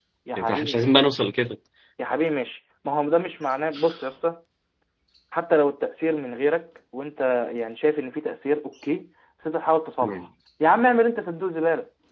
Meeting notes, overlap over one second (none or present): none